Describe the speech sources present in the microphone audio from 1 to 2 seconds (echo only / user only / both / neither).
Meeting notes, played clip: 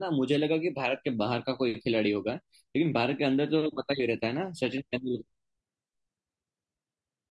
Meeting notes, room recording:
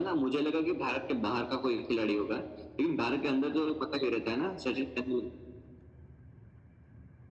echo only